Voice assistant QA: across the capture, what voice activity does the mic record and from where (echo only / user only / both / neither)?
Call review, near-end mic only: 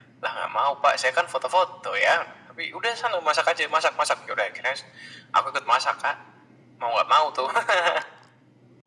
echo only